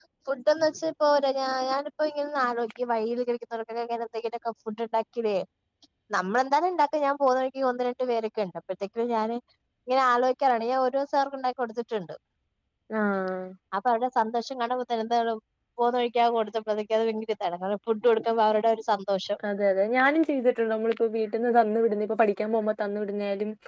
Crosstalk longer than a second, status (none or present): none